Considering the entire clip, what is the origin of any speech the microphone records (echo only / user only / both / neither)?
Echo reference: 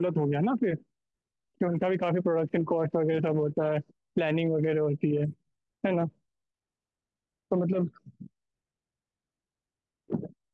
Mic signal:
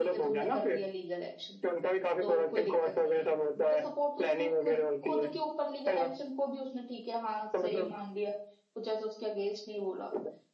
both